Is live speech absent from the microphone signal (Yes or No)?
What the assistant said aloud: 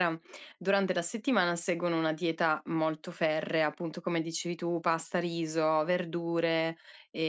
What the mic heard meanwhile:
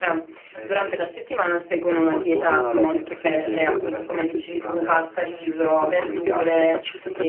No